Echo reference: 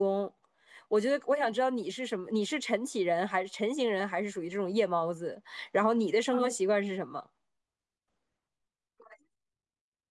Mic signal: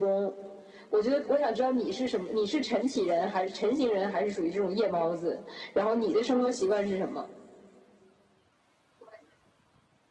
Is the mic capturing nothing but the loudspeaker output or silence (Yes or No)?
Yes